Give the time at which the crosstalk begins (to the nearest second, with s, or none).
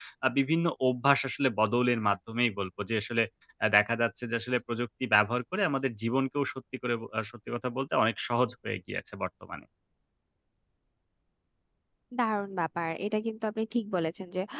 none